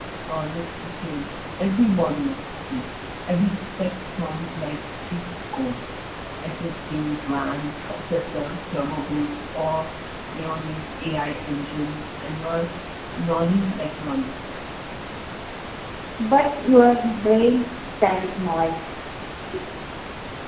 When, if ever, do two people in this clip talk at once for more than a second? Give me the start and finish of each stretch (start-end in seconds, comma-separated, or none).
none